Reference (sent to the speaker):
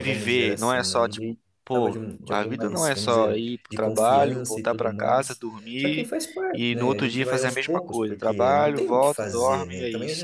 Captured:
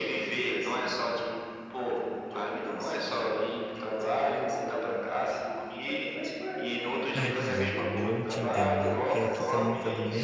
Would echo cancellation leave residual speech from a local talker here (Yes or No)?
Yes